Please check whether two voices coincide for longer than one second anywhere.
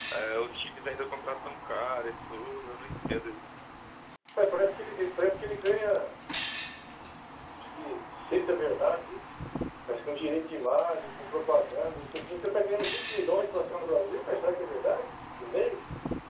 No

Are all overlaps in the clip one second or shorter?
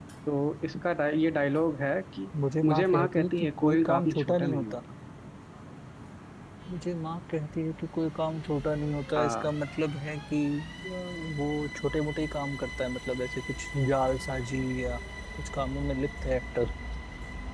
No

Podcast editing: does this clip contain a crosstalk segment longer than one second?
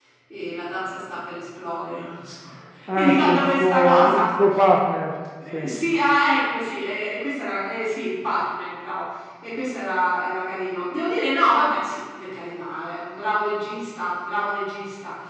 Yes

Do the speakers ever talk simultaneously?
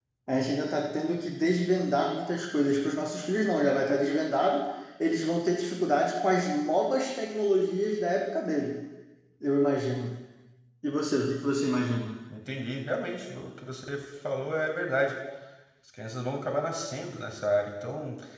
No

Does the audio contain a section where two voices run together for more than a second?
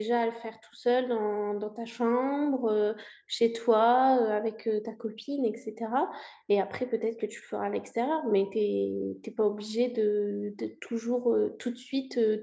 No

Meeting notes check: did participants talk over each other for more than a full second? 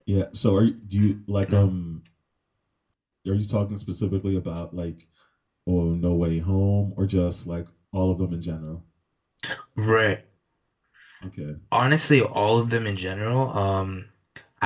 No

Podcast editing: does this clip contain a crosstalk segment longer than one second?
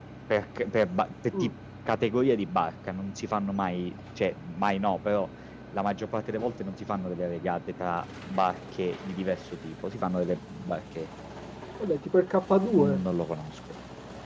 No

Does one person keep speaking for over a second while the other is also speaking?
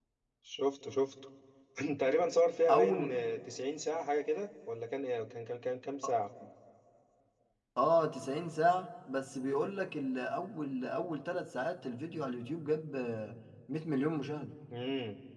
No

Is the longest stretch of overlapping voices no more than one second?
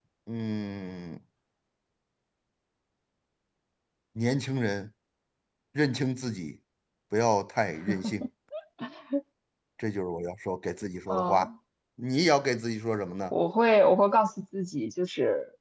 Yes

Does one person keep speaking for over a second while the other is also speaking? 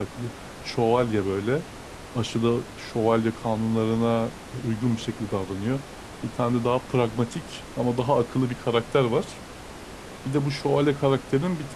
No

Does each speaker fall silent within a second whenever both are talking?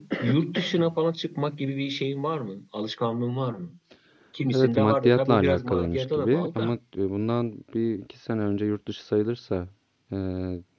No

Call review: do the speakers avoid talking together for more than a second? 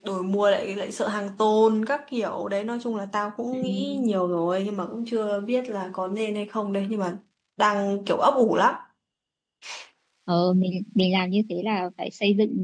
Yes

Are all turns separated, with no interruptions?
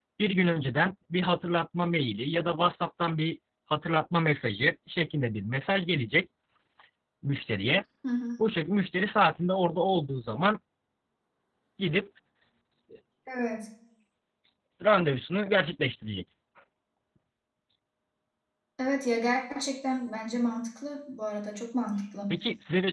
Yes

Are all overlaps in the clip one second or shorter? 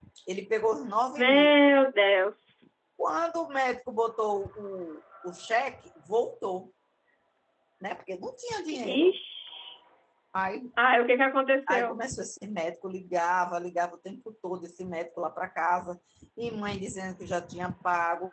Yes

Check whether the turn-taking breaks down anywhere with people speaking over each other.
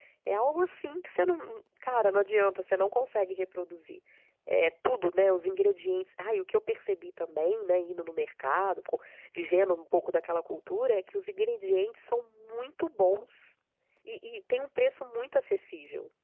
No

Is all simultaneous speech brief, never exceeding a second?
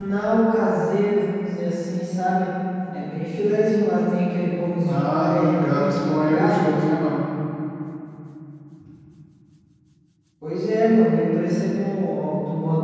No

